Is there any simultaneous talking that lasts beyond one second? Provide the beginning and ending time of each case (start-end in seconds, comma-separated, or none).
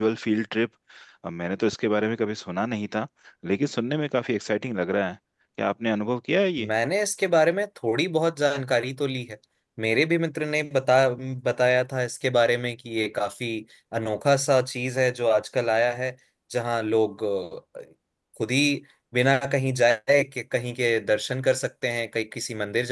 none